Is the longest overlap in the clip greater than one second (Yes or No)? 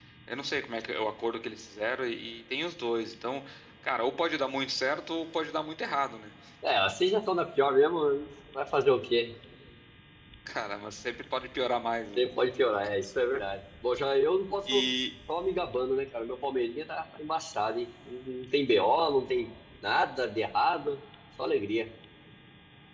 No